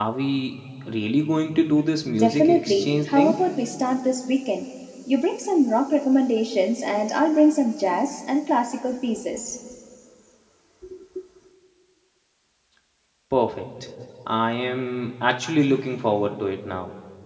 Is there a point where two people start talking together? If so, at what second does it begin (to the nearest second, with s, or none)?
2 s